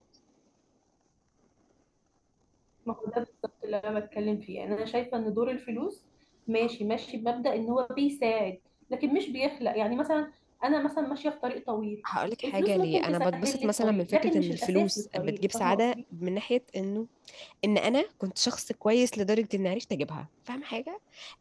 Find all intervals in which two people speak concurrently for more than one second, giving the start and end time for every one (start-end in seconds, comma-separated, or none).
12.4-15.9